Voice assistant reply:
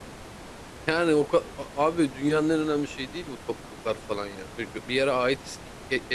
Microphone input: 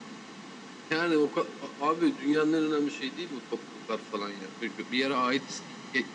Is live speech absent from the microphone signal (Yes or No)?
Yes